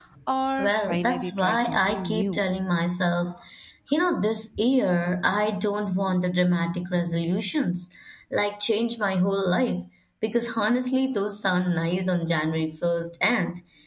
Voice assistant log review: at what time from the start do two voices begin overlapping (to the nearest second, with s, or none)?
1 s